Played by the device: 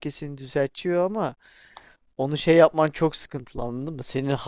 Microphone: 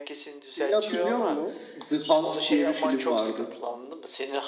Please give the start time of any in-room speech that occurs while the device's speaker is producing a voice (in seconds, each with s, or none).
0.6 s